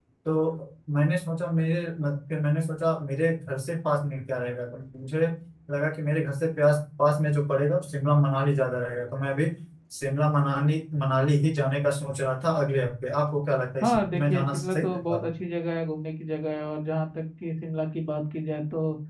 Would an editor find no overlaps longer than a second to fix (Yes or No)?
No